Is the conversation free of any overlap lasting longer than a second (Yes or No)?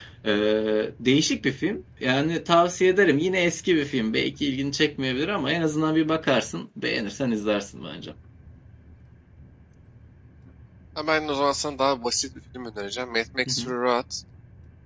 Yes